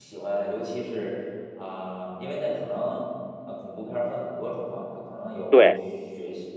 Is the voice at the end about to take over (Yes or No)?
No